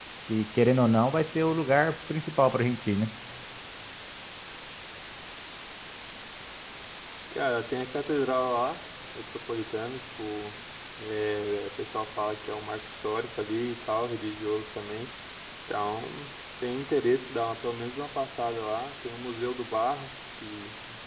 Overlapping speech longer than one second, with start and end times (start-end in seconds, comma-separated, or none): none